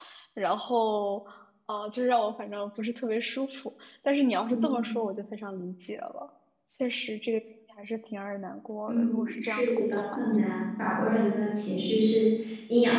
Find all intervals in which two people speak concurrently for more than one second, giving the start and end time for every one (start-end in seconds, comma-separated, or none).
8.9-10.5